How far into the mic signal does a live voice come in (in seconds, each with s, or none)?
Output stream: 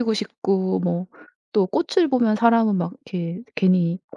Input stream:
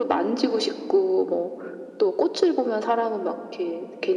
none